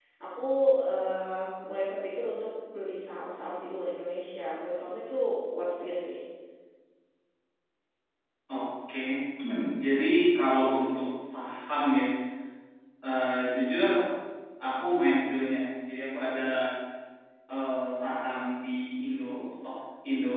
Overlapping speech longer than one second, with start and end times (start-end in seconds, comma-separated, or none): none